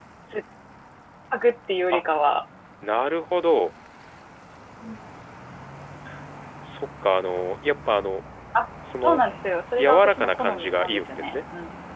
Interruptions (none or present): present